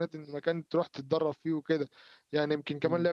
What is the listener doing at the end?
listening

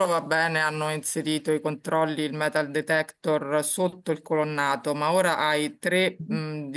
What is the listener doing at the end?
listening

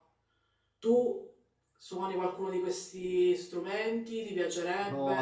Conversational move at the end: taking over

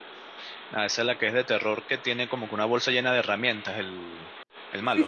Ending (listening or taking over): taking over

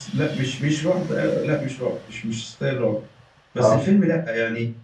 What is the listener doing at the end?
listening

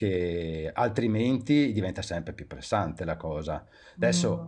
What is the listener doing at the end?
taking over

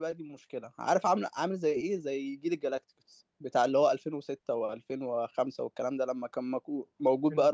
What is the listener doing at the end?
taking over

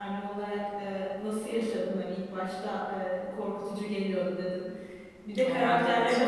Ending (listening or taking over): listening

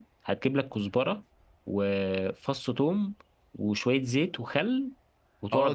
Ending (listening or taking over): taking over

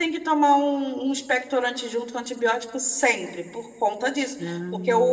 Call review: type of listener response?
listening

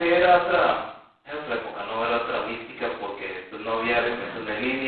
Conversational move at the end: listening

